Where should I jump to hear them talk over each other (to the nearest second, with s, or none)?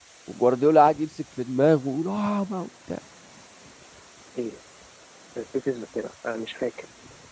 none